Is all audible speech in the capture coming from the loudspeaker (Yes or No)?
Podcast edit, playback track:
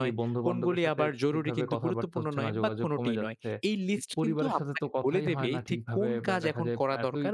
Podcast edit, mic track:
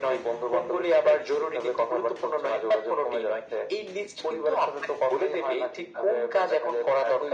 Yes